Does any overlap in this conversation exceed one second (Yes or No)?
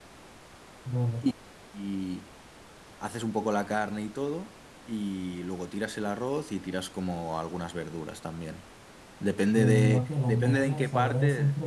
Yes